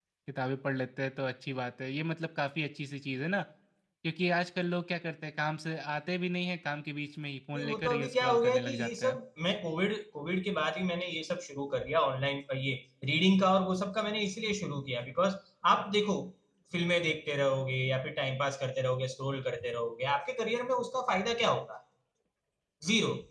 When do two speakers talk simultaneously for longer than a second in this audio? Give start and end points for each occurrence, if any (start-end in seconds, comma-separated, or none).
7.5-9.2